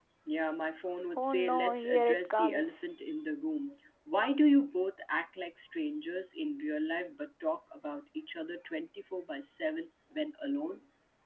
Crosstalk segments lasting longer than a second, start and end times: 1.2-2.8

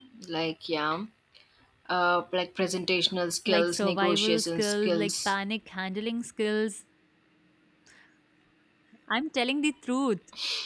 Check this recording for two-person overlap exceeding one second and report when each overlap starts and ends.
3.5-5.3

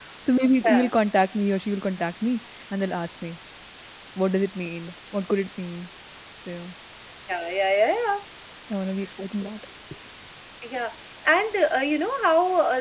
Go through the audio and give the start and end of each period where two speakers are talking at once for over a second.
none

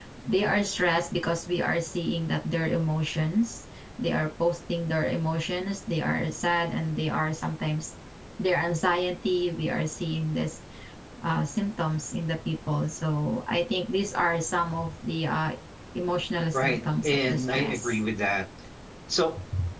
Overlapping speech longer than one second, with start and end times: 16.5-17.9

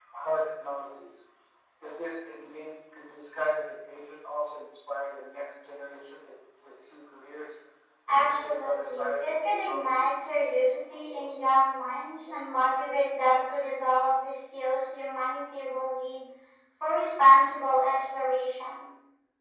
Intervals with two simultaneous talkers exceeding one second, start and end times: 8.1-10.1

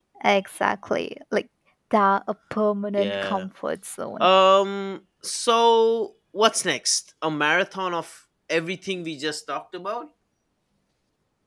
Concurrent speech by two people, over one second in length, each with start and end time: none

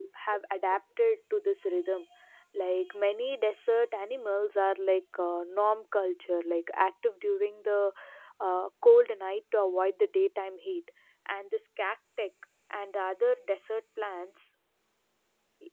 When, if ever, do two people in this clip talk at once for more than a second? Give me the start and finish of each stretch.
none

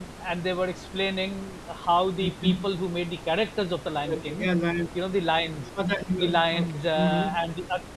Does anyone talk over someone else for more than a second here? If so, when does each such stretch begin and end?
6.2-7.4

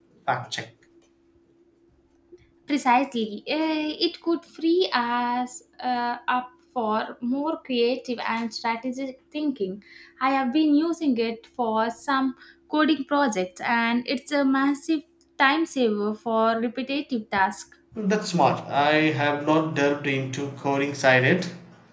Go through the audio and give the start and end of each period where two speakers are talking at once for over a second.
none

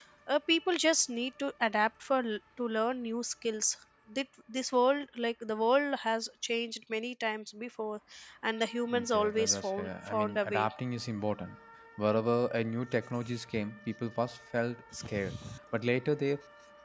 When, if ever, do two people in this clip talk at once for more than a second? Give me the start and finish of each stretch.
8.9-10.7

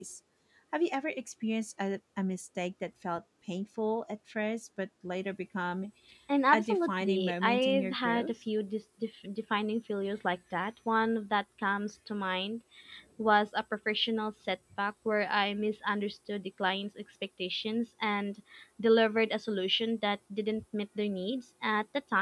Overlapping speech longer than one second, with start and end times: 6.5-8.3

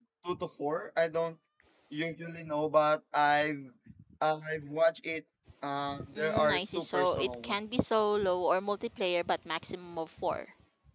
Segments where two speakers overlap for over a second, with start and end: 6.2-7.6

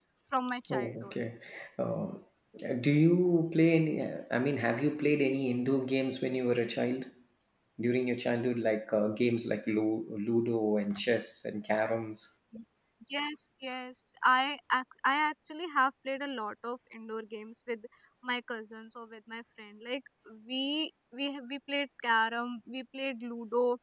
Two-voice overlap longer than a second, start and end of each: none

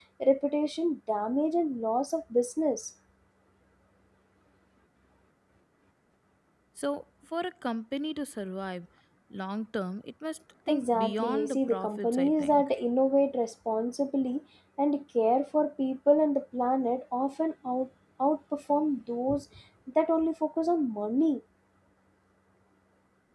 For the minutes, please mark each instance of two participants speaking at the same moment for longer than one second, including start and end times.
10.7-12.6

